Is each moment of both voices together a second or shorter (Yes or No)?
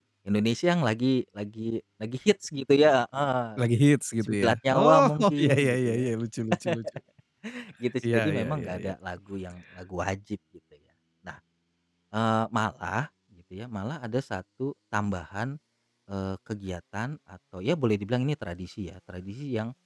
No